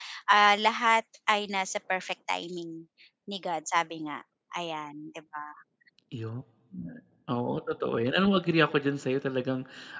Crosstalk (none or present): none